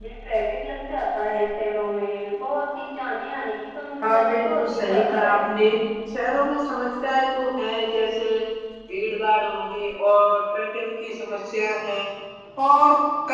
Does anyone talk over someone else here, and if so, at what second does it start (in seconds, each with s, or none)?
4.0 s